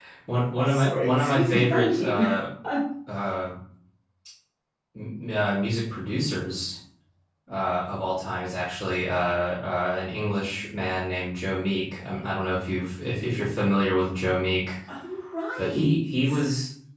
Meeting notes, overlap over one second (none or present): present